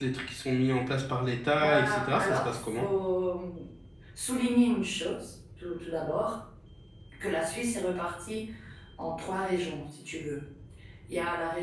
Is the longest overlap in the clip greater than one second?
Yes, from 1.6 s

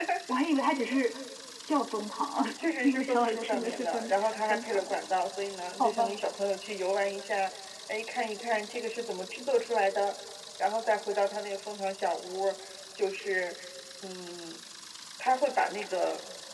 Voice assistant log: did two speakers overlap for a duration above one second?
Yes, from 2.8 s

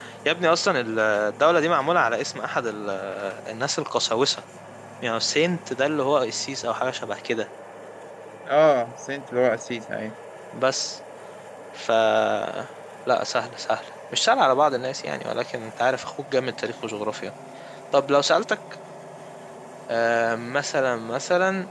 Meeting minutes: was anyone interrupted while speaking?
No

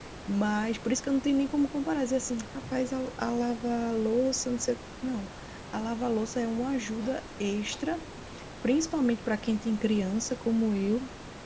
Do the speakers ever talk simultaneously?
No

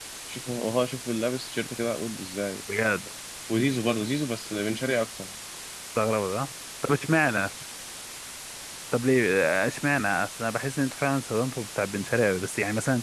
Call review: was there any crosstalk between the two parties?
No

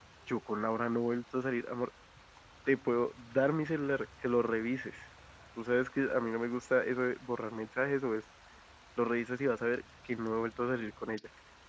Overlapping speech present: No

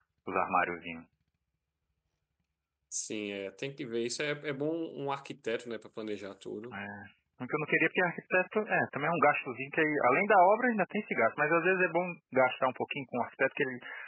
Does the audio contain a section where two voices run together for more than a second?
No

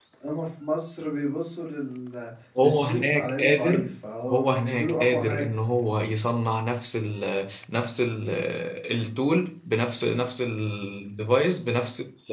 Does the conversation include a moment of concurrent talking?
Yes, from 2.6 s

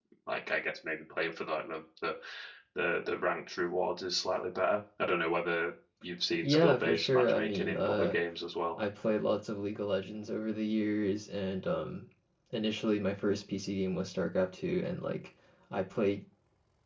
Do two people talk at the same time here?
Yes, from 6.4 s

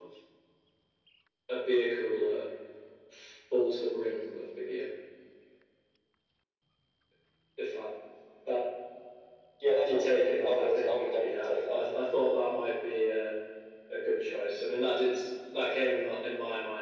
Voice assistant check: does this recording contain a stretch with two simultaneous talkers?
Yes, from 9.8 s

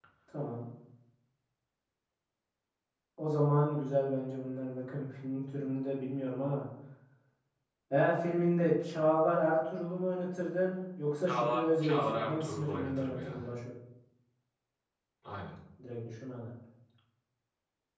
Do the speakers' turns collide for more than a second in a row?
Yes, from 11.3 s

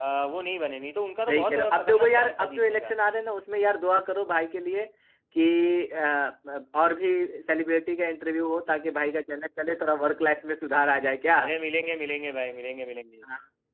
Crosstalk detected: Yes, from 1.3 s

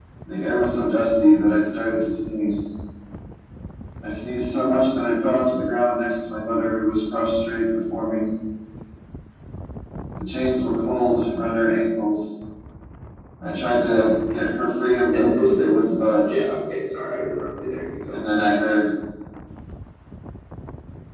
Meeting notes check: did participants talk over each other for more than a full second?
Yes, from 15.1 s

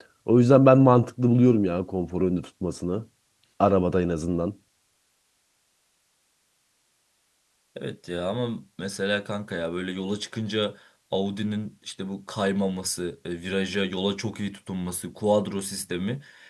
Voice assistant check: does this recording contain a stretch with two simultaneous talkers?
No

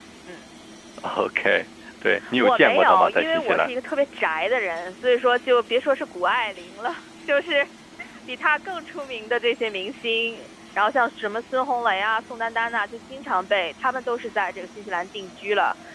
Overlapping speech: Yes, from 2.2 s

